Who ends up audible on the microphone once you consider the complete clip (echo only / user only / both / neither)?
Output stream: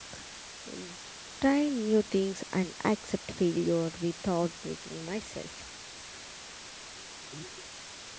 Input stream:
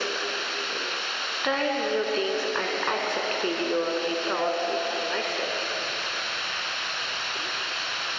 echo only